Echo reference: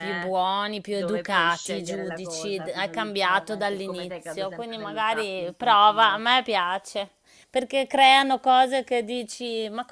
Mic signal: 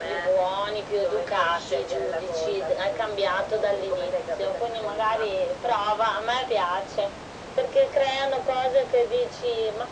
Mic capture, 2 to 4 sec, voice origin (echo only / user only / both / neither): echo only